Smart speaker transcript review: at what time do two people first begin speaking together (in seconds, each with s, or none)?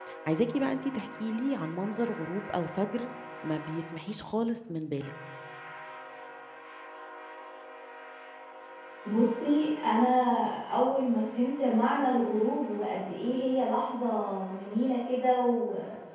none